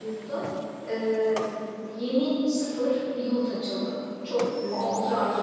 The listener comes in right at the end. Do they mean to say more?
No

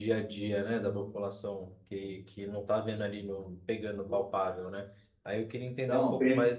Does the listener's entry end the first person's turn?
No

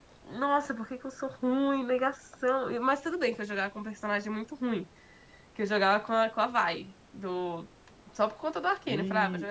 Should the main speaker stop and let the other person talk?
No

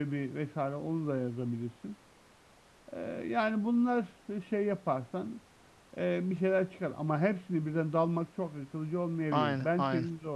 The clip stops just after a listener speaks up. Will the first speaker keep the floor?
Yes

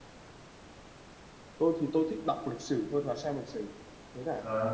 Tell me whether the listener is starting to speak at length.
Yes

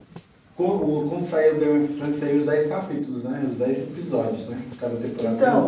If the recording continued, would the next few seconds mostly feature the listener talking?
Yes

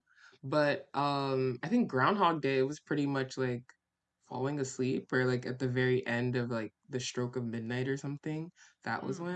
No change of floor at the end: No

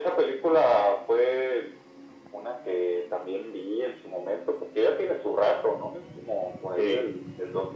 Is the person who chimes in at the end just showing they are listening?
Yes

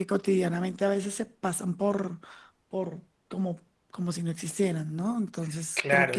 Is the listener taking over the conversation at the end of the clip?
Yes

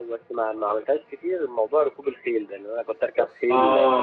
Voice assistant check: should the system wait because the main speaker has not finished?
No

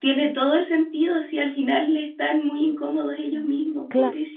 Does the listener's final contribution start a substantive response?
Yes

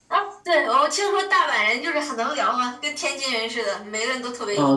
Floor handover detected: Yes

